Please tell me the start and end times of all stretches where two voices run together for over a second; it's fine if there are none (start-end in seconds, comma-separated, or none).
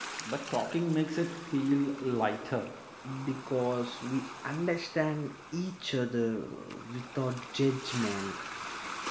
none